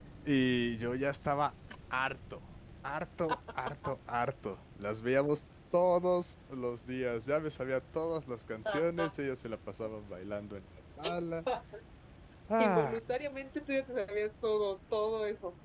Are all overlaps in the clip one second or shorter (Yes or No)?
Yes